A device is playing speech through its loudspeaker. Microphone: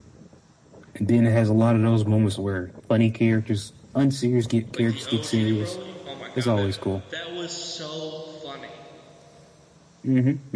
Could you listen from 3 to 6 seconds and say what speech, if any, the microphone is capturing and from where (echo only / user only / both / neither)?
both